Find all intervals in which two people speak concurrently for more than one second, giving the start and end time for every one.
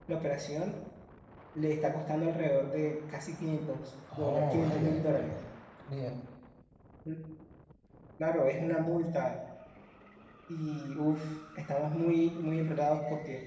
4.1-5.3

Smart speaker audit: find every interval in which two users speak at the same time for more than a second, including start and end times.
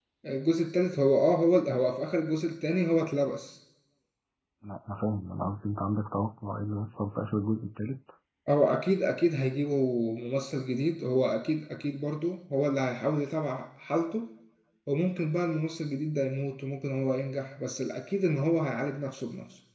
none

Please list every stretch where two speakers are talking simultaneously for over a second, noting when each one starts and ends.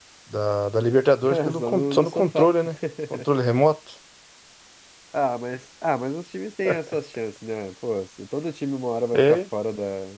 1.3-2.5

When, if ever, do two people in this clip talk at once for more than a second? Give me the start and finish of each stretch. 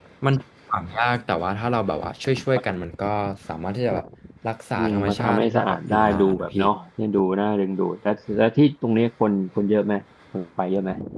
4.8-6.6

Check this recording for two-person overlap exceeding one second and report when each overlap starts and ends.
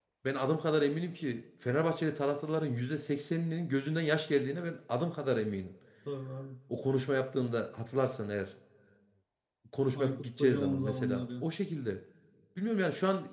9.9-11.5

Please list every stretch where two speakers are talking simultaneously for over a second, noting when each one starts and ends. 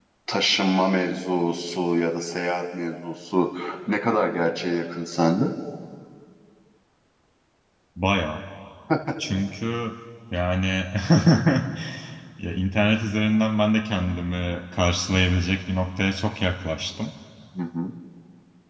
none

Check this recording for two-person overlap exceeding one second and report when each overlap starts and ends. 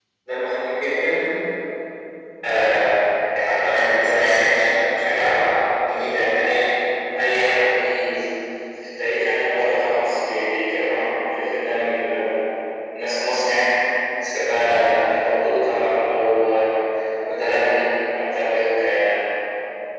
none

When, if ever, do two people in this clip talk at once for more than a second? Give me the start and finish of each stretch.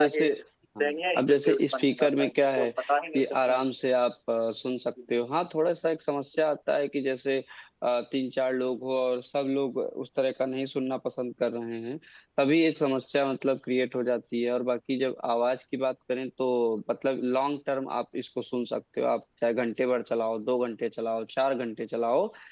0.8-2.7

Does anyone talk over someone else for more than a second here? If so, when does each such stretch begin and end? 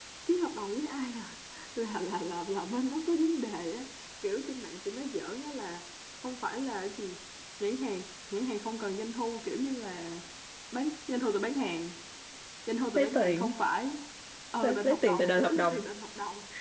14.6-15.8

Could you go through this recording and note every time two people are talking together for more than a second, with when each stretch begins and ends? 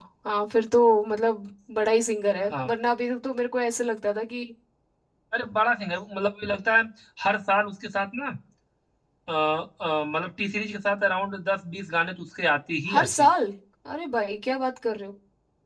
none

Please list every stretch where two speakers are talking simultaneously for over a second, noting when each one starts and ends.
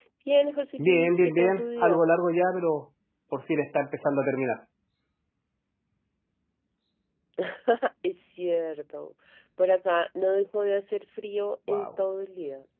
0.8-2.0

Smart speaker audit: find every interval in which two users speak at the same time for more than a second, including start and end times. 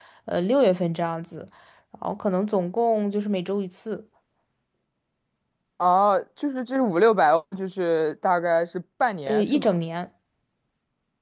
none

